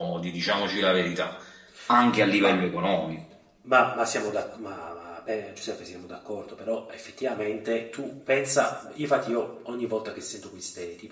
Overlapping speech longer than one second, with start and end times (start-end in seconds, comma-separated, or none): none